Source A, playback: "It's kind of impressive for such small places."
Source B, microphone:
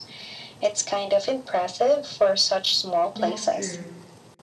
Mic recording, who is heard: both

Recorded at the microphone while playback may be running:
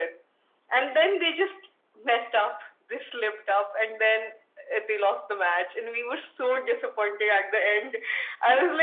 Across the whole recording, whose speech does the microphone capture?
echo only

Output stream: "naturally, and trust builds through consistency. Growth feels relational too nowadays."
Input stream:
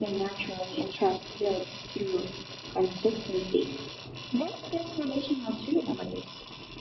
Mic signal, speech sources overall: echo only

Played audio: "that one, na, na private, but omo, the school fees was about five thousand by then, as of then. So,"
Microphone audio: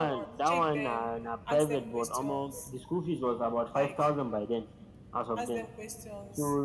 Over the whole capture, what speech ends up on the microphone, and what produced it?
both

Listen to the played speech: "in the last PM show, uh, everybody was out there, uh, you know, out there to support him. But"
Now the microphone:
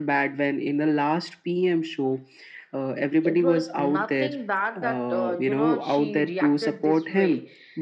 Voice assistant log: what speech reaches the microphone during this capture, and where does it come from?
both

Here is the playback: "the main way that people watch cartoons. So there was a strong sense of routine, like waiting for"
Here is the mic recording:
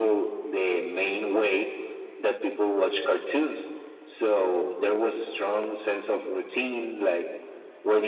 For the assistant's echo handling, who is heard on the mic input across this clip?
echo only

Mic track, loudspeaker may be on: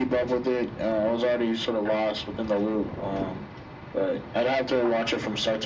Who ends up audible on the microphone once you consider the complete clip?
echo only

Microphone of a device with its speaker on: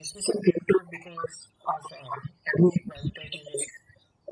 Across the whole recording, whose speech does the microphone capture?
echo only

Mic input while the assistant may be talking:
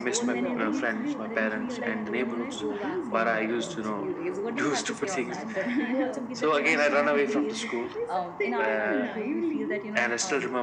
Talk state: both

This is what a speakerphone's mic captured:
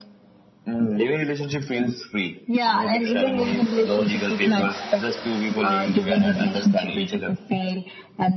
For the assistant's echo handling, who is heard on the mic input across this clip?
echo only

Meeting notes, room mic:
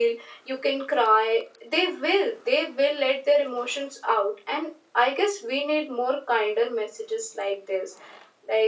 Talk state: echo only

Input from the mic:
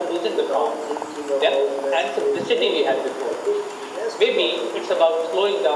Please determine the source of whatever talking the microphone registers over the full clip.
echo only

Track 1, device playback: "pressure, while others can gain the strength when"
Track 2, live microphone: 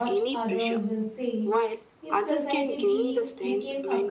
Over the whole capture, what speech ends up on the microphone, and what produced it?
both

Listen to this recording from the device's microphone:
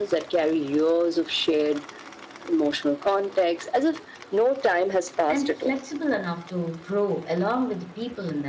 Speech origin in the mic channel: both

